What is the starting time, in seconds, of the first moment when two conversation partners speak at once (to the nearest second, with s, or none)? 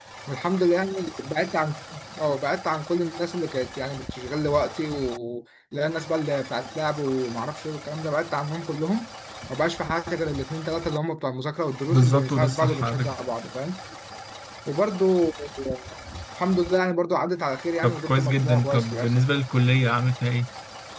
12 s